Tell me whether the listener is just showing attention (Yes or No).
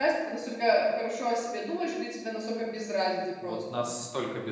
No